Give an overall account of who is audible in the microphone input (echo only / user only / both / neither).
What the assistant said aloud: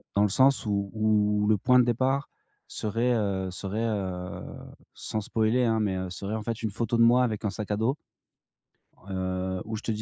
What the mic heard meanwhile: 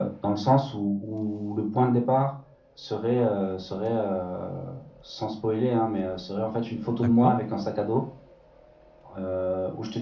both